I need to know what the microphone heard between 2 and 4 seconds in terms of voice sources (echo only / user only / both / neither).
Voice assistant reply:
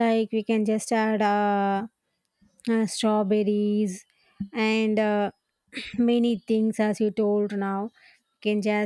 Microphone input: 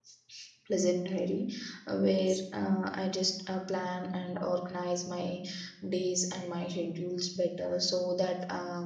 user only